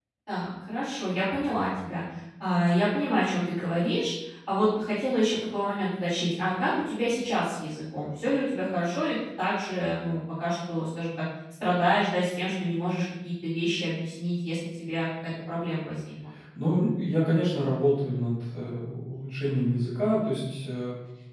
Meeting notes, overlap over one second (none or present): none